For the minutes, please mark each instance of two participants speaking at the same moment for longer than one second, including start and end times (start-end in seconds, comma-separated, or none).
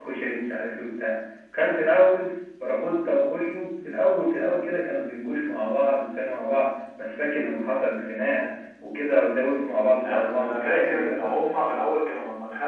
10.1-11.3